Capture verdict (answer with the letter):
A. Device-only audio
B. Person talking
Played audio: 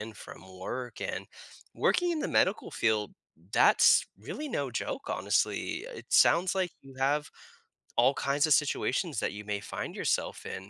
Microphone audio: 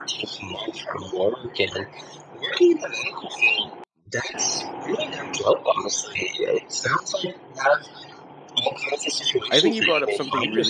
B